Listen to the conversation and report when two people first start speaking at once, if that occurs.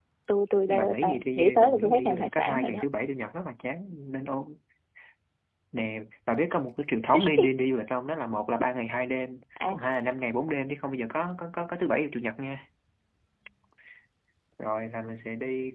0.7 s

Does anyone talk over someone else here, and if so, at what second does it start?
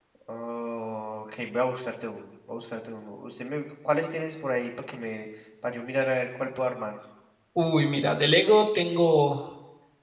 none

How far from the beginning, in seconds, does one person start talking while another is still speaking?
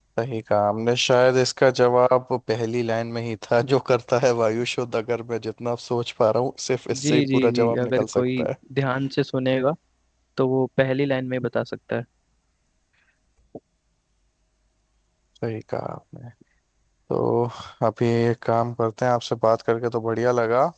6.9 s

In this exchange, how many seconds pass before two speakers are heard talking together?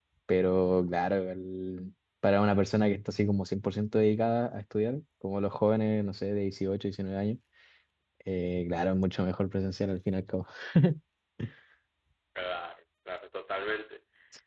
none

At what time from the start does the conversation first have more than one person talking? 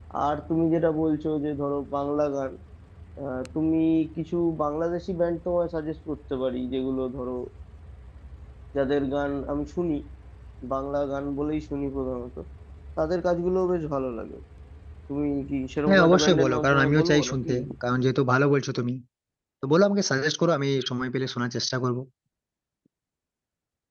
15.9 s

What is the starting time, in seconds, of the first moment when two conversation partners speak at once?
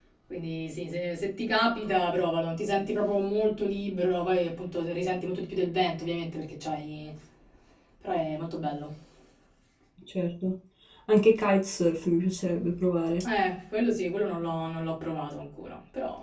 none

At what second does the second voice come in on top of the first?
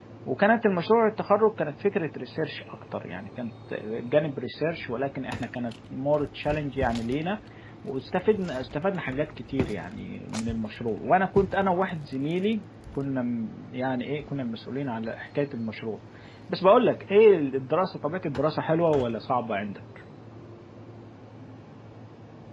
none

